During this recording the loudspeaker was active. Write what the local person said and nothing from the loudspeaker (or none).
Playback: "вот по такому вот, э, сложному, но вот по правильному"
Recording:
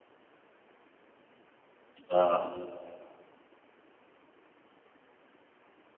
Да,